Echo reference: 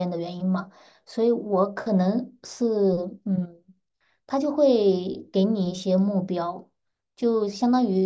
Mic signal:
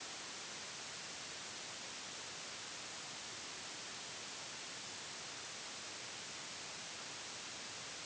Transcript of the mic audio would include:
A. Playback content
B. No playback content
B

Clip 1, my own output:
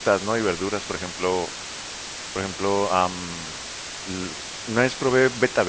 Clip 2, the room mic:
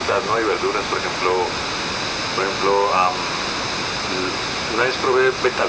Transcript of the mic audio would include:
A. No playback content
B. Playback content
B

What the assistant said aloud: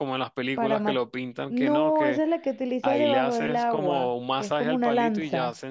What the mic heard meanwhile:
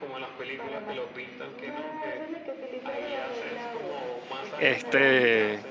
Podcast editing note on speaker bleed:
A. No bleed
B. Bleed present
B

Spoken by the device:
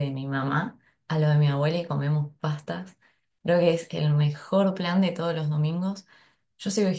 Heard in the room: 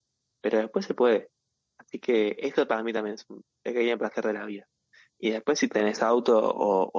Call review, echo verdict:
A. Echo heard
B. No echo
B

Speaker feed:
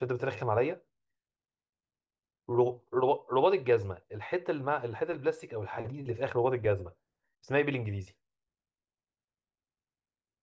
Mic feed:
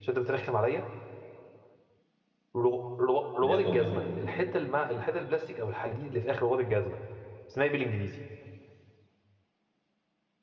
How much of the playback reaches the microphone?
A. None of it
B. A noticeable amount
B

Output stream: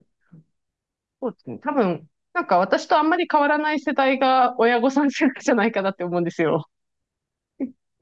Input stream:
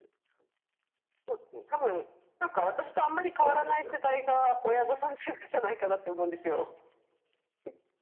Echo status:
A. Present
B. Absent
A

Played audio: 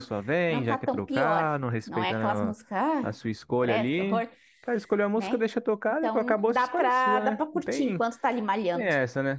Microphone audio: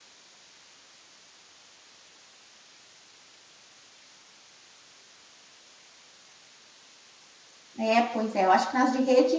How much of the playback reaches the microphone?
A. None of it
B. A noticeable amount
A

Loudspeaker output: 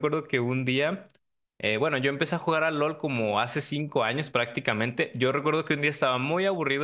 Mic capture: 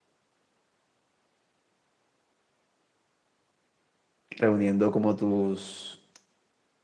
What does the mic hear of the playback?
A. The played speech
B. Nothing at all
B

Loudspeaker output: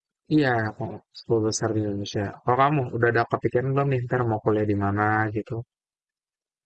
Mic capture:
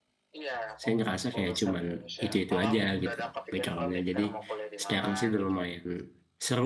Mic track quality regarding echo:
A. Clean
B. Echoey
B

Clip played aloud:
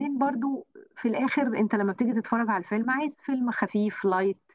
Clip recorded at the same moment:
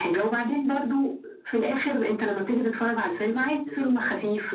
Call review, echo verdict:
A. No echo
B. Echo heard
B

